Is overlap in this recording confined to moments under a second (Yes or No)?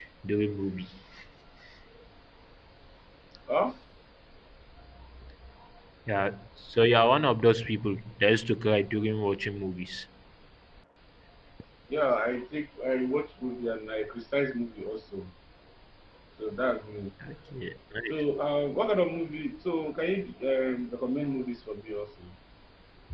Yes